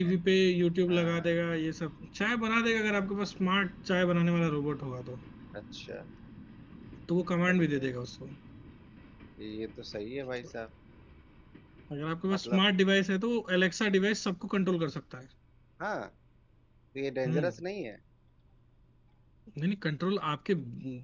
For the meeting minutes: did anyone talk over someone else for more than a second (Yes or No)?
No